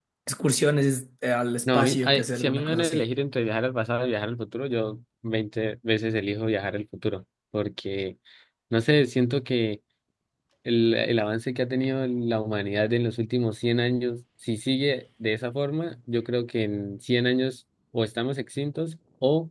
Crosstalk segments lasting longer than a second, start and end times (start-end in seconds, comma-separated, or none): 1.7-3.1